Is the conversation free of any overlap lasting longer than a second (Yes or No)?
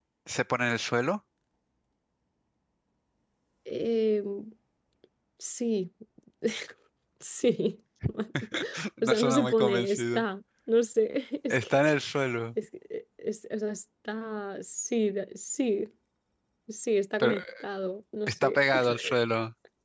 No